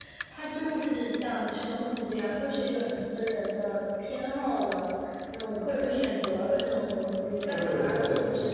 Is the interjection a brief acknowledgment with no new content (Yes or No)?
Yes